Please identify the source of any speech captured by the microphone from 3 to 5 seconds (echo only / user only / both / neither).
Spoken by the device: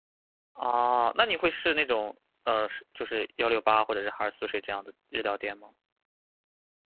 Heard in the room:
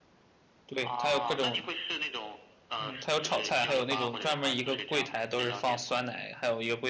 both